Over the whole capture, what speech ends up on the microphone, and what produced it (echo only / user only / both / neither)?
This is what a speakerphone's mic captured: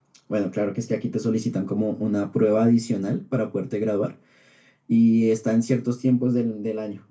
user only